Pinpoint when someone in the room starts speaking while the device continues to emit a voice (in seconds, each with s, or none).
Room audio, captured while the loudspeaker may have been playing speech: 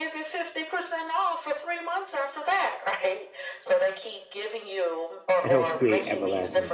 5.4 s